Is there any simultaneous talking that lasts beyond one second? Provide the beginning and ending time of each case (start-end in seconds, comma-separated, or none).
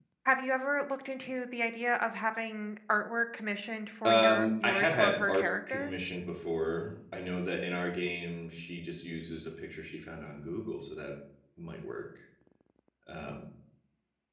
4.0-6.0